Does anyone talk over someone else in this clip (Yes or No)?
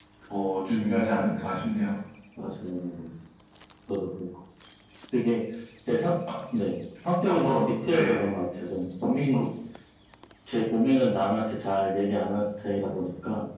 Yes